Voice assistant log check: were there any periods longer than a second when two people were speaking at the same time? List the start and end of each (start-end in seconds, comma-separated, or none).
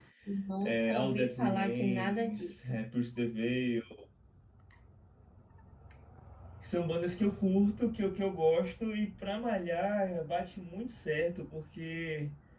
0.6-2.8